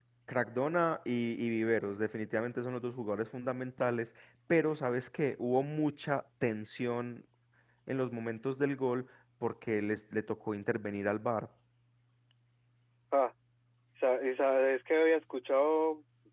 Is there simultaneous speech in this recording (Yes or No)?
No